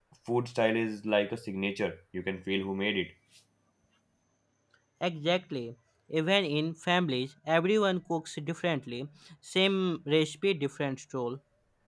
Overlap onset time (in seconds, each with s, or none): none